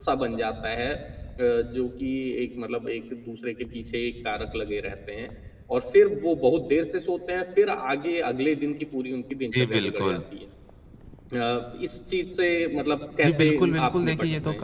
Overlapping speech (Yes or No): Yes